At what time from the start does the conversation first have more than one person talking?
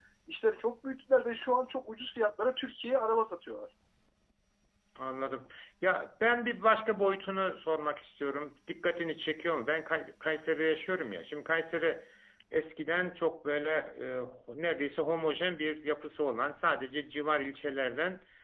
none

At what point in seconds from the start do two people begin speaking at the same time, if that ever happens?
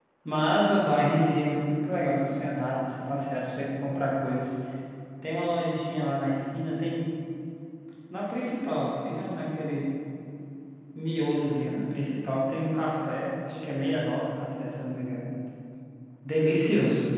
none

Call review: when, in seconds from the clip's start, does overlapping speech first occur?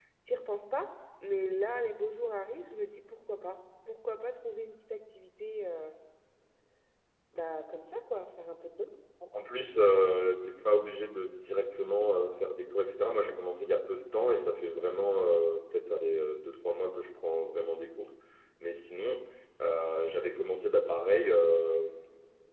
none

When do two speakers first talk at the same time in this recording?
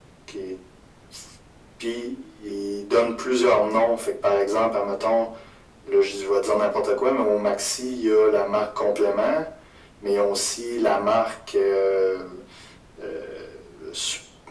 none

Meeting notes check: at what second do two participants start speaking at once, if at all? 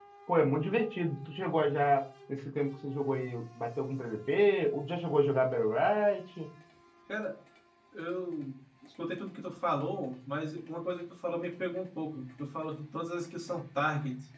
none

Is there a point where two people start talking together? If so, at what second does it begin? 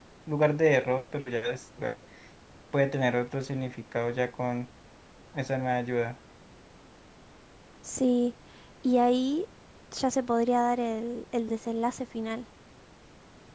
none

